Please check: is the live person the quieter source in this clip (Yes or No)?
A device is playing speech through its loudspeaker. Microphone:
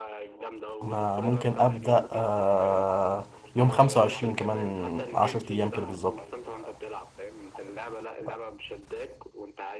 No